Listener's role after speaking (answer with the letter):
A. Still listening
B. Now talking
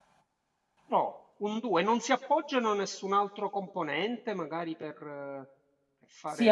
B